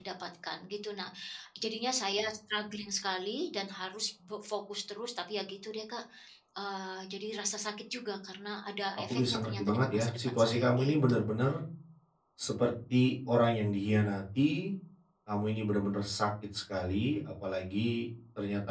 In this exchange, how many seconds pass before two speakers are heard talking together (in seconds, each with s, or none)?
9.1 s